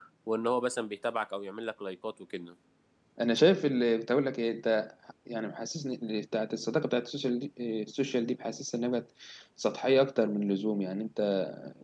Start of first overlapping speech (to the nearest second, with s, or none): none